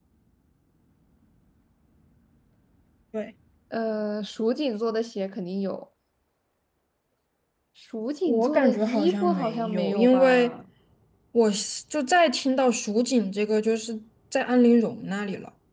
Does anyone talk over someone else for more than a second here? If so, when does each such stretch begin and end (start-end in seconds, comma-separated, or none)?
8.3-10.5